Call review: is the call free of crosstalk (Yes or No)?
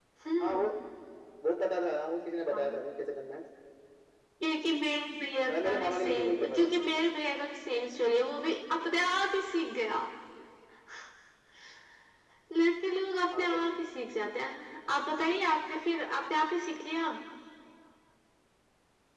No